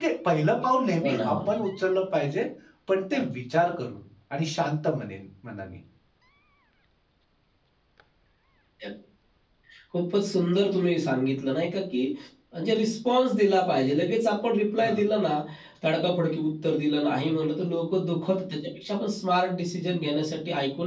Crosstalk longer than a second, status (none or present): none